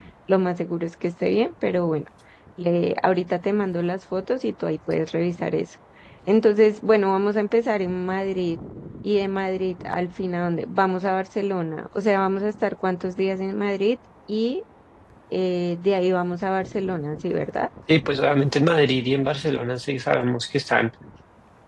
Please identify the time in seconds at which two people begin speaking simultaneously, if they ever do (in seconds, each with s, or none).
none